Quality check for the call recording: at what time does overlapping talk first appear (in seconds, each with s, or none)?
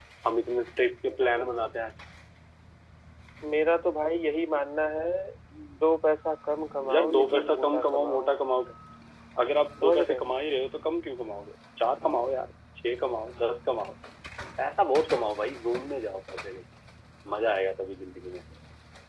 6.9 s